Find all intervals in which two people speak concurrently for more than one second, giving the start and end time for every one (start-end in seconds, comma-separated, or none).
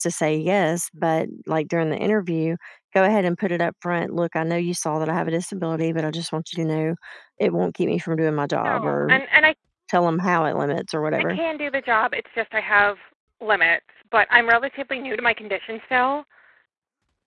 none